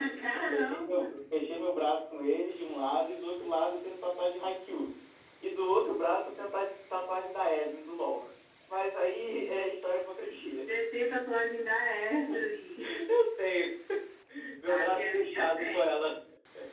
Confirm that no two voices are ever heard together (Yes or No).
No